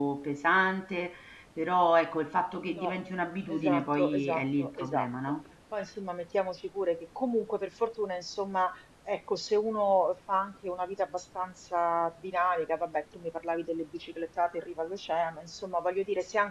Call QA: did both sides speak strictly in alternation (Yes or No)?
No